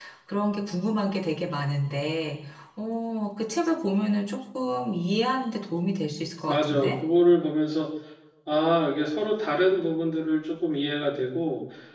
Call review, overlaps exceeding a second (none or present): none